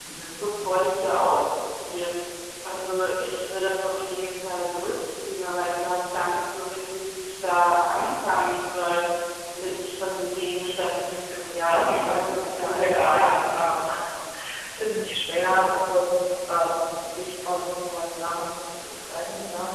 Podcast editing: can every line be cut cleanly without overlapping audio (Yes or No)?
No